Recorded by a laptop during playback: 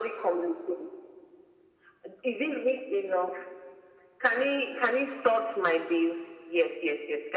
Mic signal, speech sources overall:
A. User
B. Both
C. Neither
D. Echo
D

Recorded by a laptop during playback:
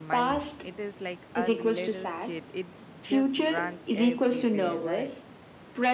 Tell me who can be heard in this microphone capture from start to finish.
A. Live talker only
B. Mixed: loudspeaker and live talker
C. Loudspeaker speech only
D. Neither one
B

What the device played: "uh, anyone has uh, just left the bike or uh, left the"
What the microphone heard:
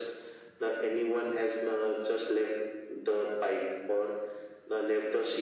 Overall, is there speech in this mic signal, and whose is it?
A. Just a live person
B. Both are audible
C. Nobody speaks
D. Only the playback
D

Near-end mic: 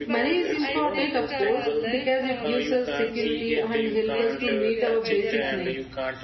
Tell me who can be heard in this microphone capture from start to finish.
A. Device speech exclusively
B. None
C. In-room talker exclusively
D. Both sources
D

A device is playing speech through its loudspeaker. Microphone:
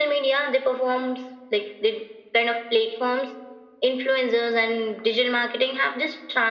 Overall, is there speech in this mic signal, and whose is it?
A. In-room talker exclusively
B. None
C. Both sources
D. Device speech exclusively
D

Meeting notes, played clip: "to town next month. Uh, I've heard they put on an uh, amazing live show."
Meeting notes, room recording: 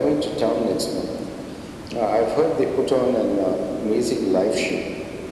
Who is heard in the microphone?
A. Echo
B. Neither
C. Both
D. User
A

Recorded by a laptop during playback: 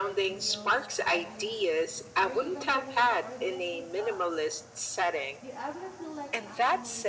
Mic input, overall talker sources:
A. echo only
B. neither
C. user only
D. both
D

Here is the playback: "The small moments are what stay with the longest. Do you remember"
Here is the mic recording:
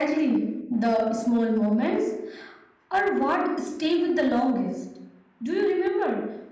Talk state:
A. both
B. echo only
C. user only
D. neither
B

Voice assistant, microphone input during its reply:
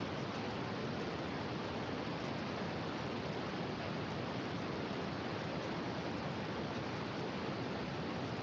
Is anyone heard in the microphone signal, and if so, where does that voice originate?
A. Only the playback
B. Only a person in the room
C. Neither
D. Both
C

